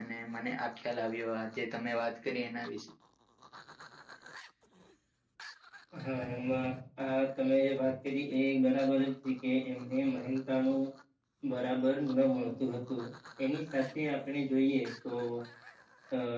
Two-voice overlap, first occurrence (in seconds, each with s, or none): none